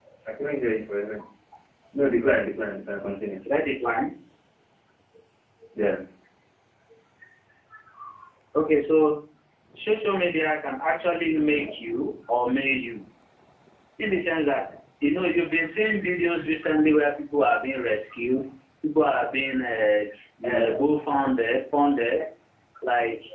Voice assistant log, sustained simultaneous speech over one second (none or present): none